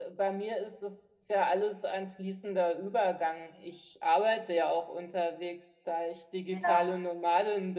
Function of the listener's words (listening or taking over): listening